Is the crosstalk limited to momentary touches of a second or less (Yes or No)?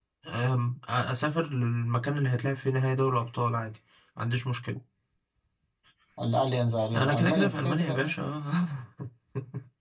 No